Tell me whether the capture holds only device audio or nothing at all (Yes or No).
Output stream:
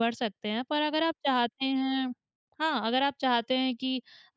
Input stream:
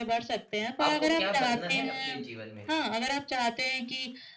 No